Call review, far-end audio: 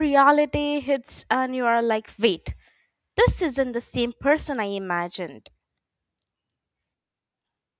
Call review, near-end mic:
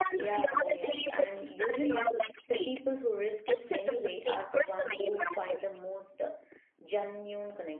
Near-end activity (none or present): present